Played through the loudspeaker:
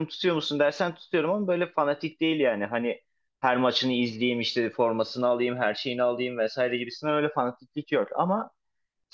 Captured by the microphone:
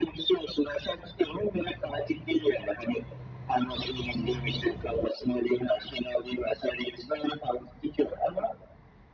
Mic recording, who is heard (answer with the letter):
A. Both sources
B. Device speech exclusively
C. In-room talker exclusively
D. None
B